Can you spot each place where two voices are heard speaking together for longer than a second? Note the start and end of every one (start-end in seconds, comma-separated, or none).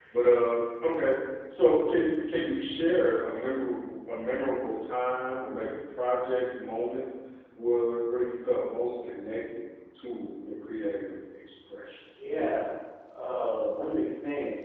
none